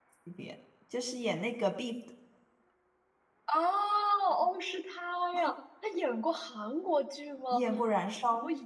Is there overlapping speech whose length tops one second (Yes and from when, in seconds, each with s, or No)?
No